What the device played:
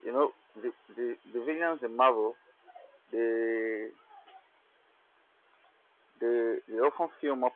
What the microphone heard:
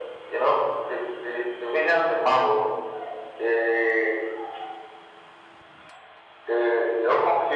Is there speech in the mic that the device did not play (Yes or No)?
No